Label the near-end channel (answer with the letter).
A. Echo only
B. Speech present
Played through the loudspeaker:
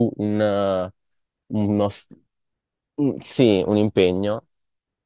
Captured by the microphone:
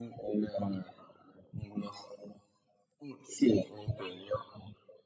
A